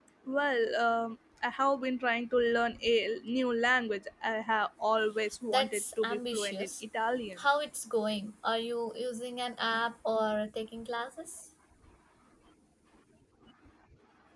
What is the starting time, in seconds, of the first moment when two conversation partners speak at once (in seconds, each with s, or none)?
5.5 s